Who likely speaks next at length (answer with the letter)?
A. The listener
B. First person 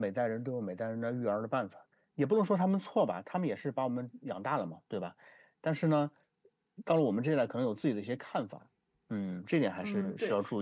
A